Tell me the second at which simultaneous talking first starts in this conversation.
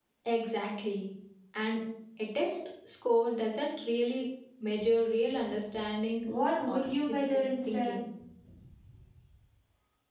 6.7 s

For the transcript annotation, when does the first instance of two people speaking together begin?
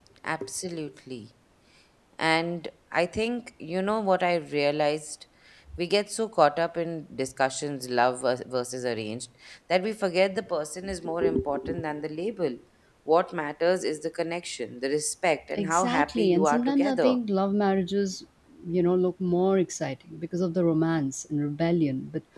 15.6 s

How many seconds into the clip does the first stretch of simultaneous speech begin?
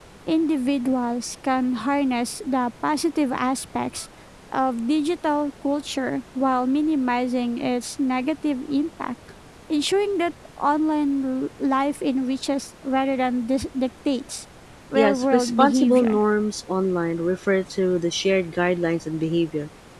15.0 s

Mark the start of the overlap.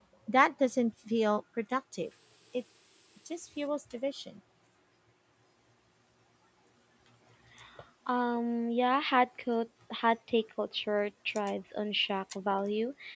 none

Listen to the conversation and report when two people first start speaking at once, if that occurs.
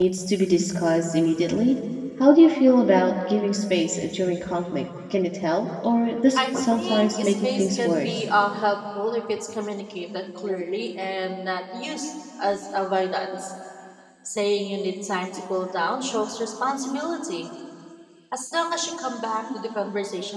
6.4 s

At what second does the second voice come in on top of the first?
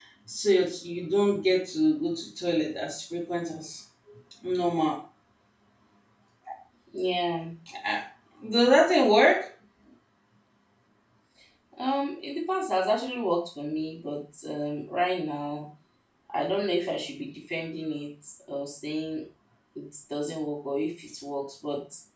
none

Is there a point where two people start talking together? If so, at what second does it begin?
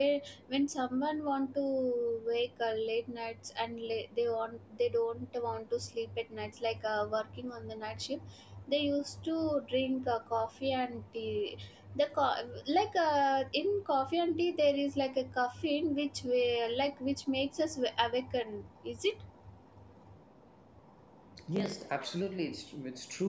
none

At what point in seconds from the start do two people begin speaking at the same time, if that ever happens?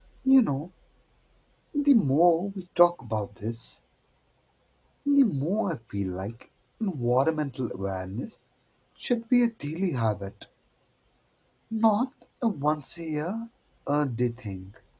none

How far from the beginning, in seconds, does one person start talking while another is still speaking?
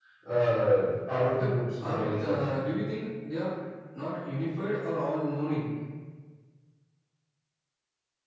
1.3 s

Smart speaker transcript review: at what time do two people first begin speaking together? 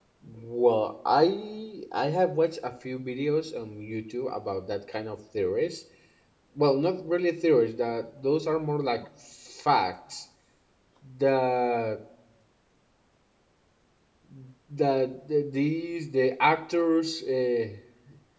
none

